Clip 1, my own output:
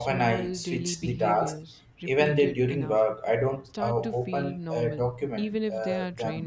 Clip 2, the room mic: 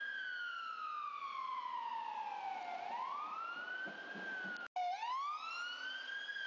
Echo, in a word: none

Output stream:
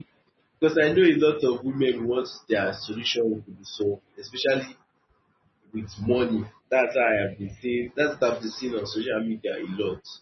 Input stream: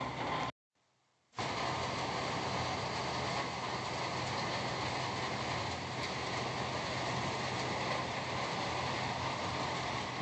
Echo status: none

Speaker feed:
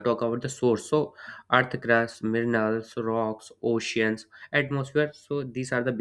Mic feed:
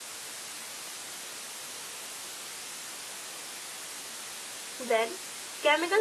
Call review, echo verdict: none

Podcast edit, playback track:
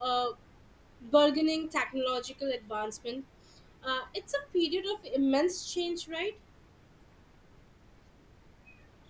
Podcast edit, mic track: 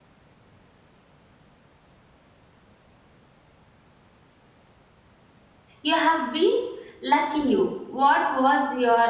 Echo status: none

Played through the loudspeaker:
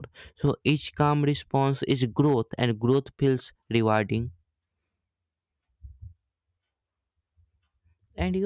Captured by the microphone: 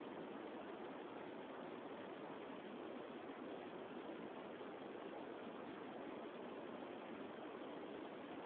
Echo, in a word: none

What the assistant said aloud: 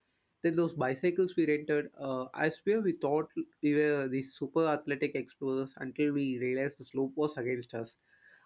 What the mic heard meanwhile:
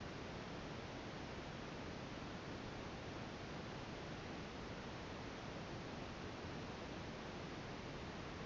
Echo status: none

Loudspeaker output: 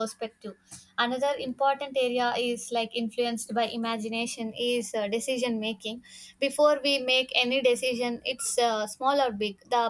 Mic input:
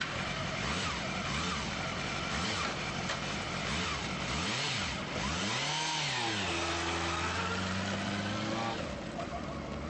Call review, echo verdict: none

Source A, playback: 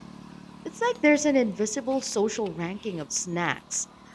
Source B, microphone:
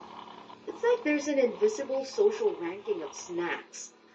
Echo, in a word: present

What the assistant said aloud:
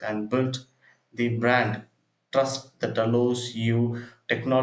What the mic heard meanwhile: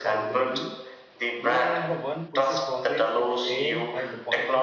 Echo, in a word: present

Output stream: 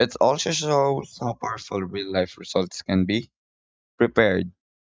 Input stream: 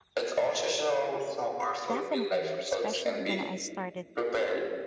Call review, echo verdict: present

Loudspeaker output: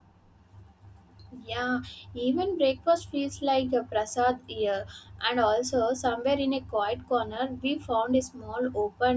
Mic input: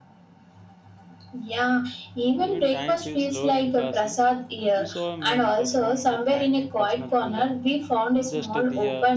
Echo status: present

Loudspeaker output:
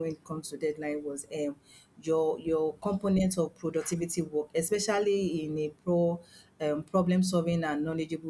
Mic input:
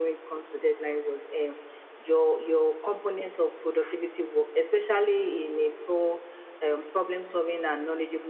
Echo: present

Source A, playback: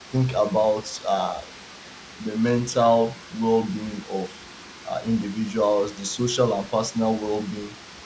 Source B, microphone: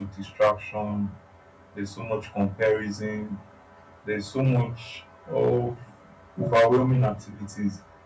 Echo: none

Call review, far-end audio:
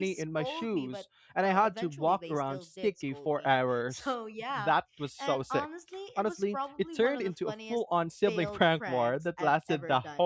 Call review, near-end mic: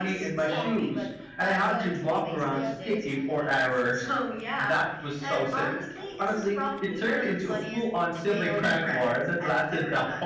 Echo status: present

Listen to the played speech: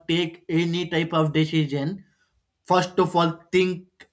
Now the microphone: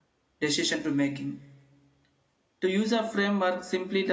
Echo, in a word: none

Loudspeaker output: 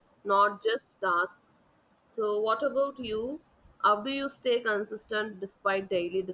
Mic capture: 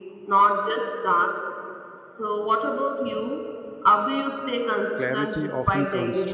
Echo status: present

